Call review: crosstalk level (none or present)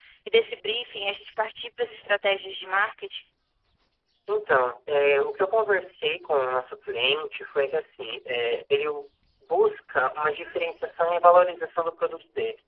none